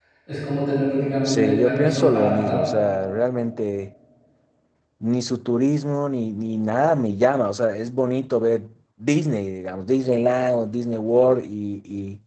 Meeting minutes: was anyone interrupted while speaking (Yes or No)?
Yes